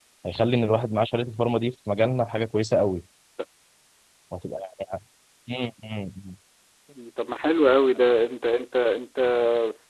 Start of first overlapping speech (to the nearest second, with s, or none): none